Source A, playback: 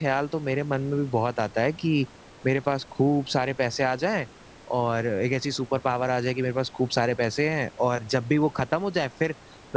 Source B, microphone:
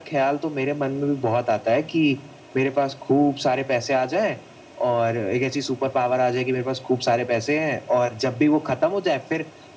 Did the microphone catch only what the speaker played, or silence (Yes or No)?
Yes